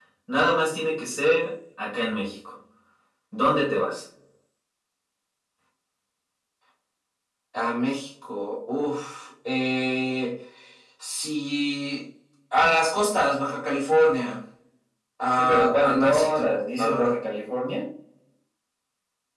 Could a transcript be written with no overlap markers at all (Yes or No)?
No